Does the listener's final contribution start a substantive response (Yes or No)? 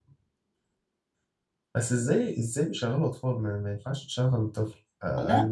Yes